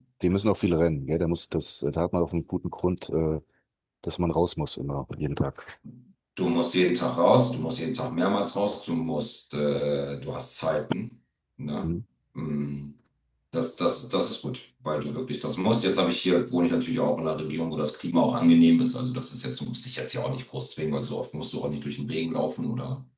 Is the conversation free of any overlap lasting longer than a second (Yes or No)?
Yes